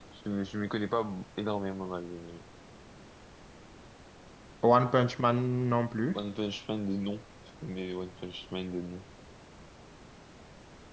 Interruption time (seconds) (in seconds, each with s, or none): none